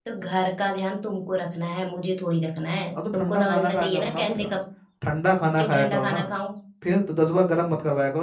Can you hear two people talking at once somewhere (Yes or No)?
Yes